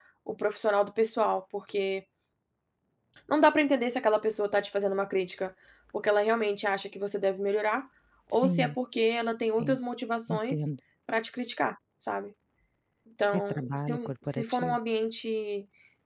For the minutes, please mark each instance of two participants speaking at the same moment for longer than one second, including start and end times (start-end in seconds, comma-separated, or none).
13.3-14.8